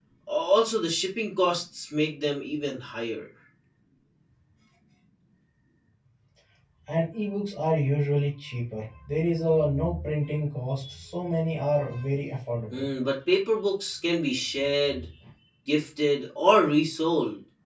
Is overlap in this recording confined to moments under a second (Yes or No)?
Yes